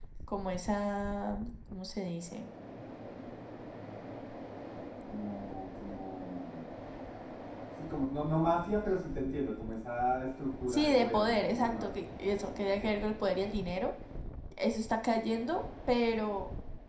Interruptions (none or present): present